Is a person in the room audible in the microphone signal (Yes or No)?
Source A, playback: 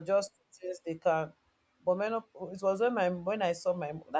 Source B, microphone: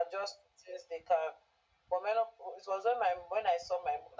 No